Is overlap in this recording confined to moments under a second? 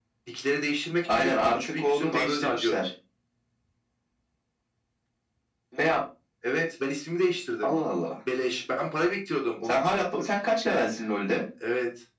No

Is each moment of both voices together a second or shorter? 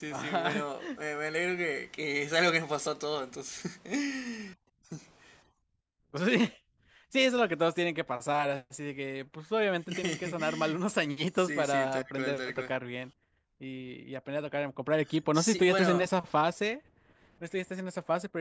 No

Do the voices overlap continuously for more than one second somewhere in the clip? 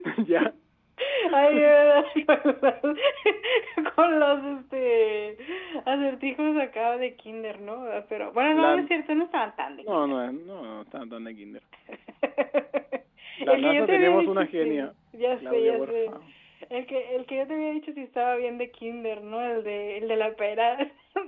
Yes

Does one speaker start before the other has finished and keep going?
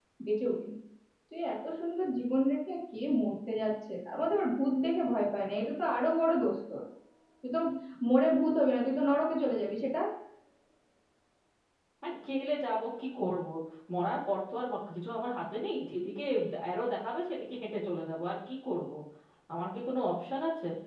No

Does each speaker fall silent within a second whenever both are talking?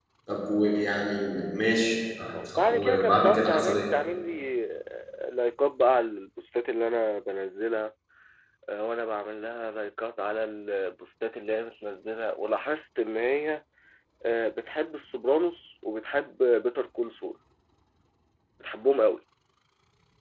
No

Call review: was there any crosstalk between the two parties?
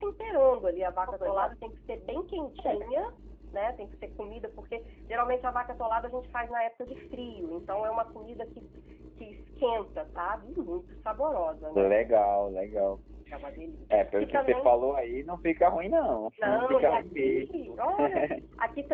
Yes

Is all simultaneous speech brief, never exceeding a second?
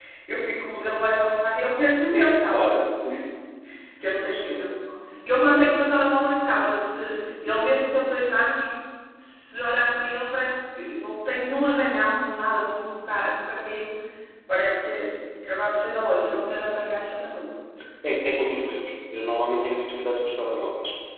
Yes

